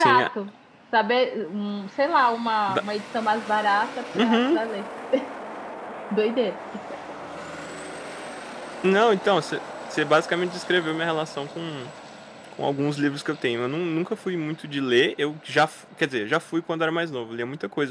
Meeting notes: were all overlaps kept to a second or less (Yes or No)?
Yes